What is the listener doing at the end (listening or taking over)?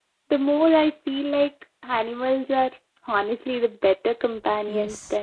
taking over